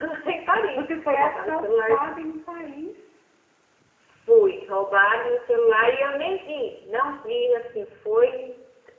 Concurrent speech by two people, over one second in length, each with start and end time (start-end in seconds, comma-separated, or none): 0.7-2.0